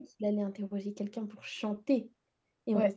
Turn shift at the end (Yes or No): No